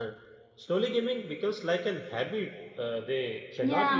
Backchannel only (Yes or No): No